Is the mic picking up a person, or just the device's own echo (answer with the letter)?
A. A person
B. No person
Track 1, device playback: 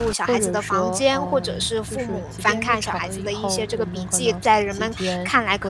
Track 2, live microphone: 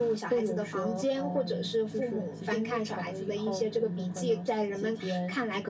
B